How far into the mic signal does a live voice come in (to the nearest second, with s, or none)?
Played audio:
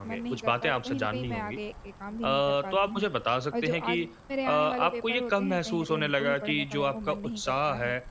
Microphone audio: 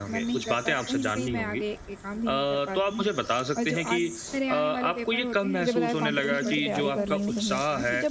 6 s